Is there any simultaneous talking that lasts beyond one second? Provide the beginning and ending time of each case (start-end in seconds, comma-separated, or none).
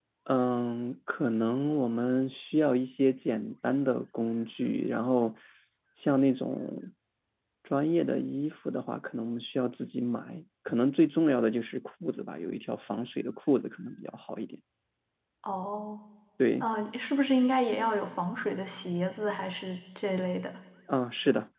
none